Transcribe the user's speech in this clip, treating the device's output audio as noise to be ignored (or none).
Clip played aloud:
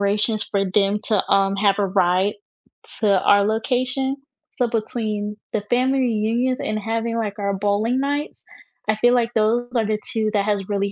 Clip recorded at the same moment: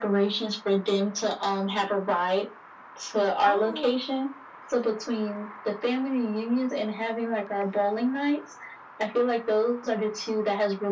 Oh,